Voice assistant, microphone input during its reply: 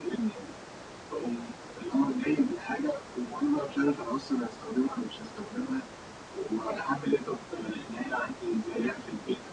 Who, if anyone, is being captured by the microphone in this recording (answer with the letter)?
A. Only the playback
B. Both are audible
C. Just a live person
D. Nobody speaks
A